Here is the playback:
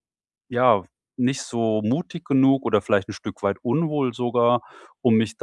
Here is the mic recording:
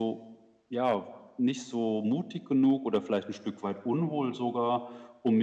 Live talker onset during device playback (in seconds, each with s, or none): none